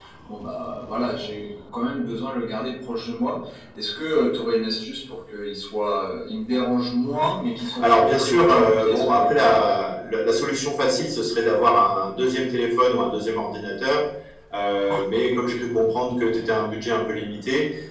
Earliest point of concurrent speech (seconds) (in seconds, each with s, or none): 7.6 s